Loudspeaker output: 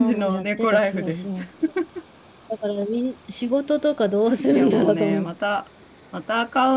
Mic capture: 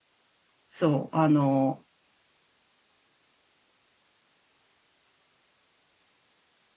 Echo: none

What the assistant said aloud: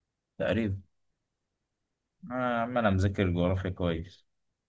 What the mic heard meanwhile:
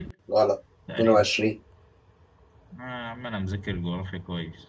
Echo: present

